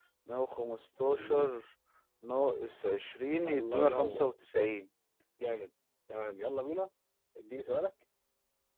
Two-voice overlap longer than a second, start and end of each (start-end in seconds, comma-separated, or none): 3.5-4.7